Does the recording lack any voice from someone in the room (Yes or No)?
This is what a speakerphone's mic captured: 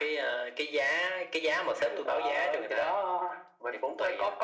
Yes